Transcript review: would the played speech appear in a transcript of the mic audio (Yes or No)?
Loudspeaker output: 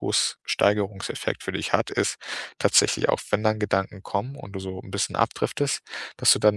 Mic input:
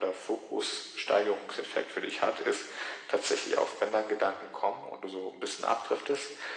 Yes